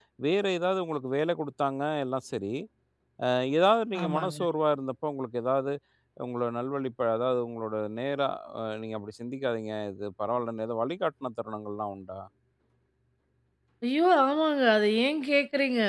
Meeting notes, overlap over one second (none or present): none